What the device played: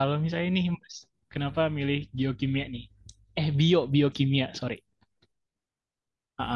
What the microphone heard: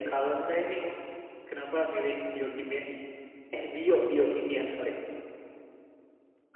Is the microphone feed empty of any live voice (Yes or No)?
Yes